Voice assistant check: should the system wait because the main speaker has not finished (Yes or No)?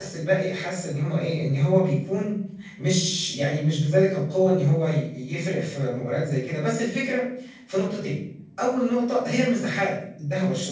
Yes